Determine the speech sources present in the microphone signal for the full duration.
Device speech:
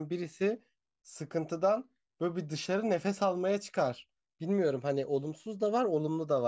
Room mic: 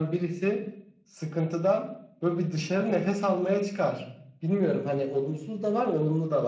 echo only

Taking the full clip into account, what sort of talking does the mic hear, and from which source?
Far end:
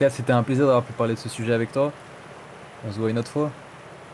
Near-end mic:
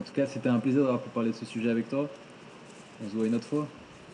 echo only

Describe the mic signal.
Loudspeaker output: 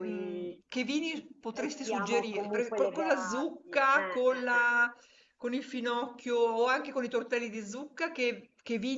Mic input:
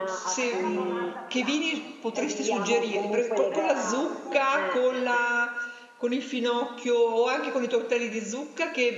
both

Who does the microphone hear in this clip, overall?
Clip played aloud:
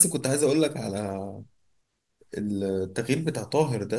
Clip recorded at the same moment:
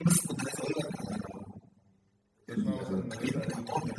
both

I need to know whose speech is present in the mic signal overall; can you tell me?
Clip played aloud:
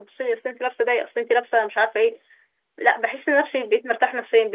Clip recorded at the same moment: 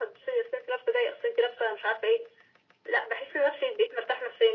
echo only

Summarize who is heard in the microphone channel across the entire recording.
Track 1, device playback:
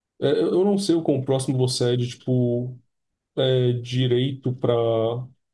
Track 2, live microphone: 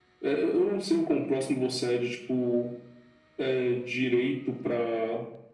echo only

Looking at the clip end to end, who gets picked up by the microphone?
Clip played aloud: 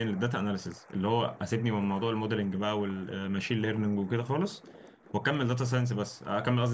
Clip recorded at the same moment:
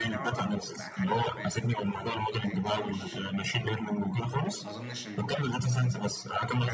both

